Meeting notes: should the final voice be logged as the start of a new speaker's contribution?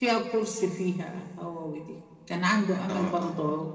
No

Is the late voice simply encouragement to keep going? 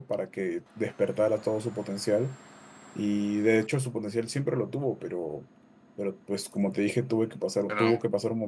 Yes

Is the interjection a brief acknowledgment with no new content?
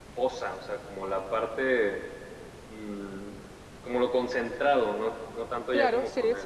No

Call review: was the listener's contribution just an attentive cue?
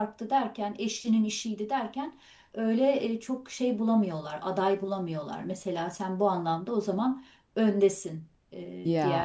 Yes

